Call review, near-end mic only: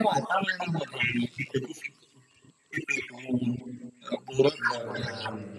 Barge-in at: 5 s

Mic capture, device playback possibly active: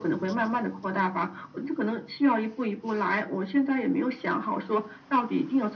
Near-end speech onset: none

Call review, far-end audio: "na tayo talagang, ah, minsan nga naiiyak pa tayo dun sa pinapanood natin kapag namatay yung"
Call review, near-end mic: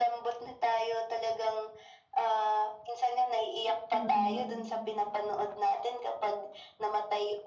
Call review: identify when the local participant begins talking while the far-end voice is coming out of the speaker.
4 s

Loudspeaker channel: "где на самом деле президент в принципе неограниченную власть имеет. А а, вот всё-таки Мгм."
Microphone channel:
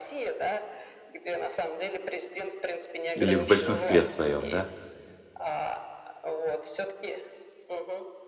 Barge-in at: 3 s

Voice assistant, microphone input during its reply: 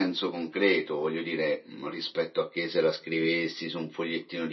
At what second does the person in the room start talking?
none

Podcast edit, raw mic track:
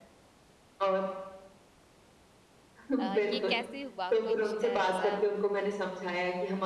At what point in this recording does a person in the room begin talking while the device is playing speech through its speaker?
3 s

